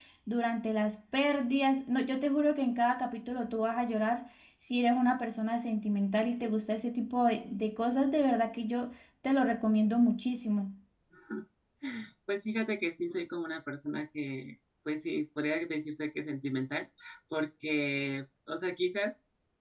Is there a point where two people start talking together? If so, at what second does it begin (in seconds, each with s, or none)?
none